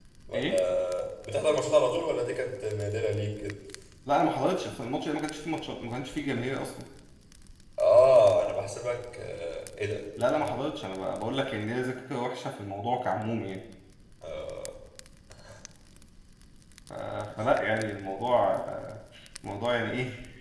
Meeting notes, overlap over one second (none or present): none